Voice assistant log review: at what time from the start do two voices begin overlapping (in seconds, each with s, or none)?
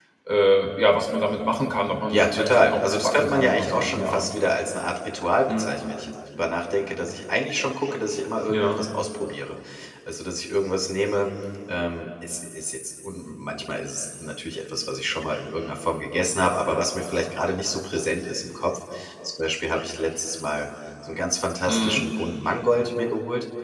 2.1 s